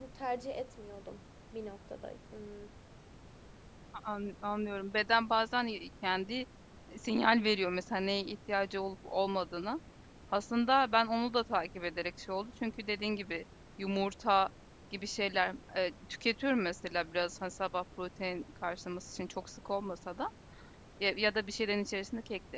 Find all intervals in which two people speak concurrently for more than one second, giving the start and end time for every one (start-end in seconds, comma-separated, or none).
none